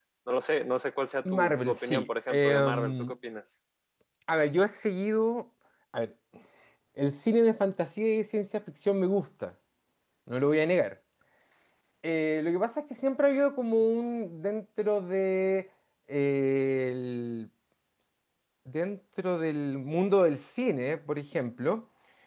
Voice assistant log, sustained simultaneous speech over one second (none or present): present